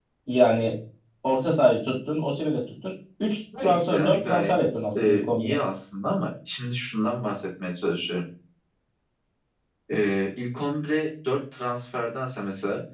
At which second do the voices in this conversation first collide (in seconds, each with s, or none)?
3.5 s